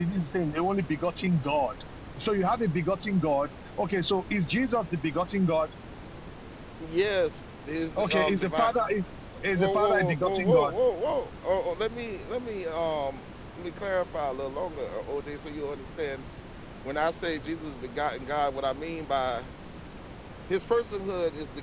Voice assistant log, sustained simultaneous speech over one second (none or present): present